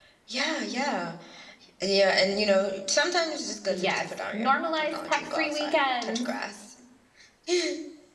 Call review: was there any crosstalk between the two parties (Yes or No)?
Yes